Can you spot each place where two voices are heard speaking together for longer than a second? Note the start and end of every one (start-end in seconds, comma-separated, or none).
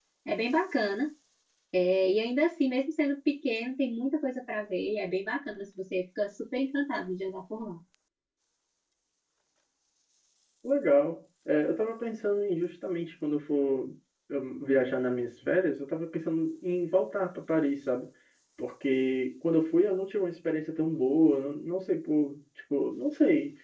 none